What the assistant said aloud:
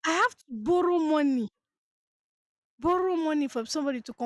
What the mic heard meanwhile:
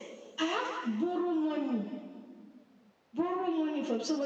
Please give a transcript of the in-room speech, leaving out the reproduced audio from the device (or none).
none